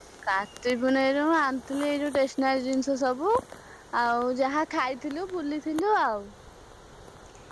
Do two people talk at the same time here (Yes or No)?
No